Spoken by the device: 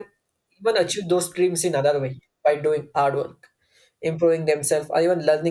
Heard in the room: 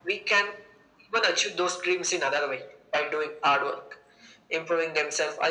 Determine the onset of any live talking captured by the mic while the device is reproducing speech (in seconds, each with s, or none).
none